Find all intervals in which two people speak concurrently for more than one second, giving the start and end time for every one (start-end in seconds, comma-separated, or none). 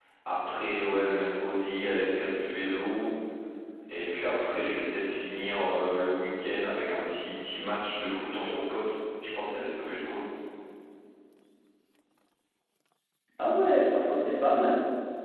none